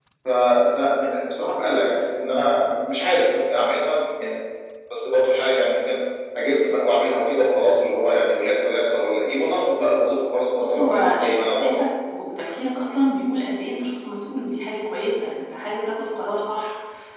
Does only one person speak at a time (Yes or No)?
No